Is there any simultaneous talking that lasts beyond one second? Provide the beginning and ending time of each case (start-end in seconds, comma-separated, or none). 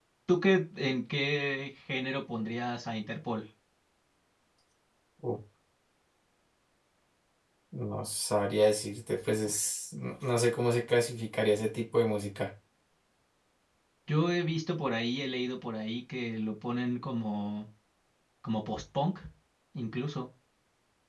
none